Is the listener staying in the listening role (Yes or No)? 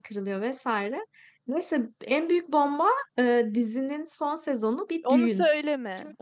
No